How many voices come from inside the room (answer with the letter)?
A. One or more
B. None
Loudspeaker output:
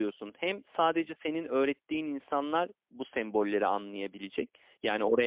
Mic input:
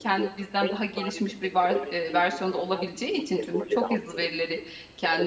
A